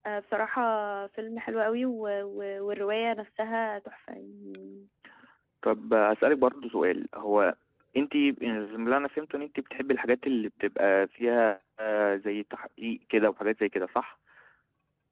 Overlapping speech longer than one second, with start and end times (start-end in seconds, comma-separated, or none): none